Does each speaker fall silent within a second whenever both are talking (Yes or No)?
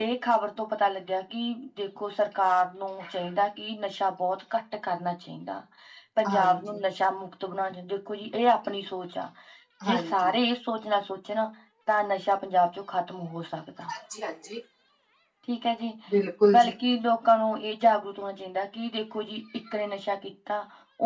Yes